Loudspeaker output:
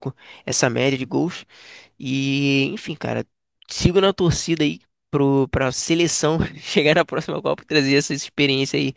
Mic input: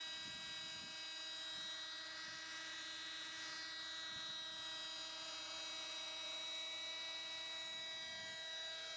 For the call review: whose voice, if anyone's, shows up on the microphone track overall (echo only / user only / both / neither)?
neither